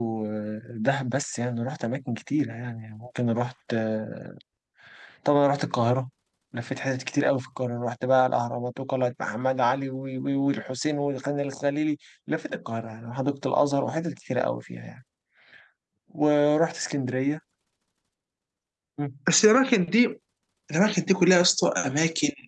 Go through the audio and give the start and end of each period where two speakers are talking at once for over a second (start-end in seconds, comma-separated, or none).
none